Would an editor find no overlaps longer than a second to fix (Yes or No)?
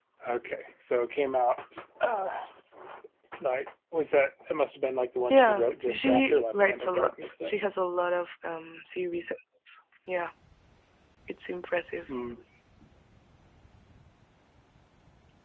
No